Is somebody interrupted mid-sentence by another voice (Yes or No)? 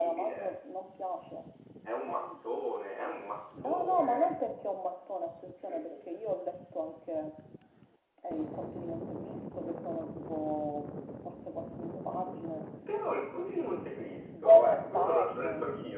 Yes